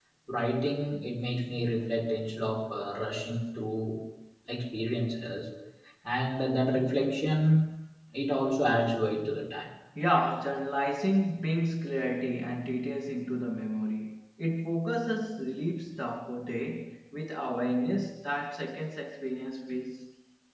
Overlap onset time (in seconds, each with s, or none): none